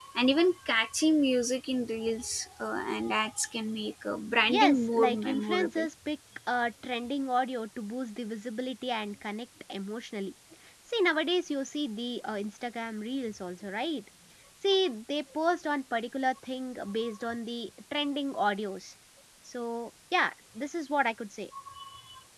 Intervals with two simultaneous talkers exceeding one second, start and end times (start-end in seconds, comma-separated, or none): 4.5-5.9